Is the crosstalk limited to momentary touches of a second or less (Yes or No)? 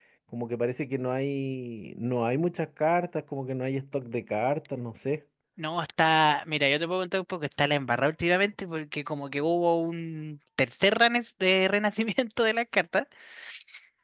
Yes